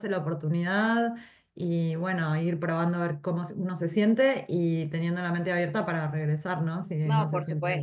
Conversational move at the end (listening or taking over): taking over